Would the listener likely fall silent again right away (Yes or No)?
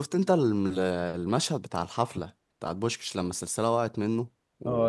No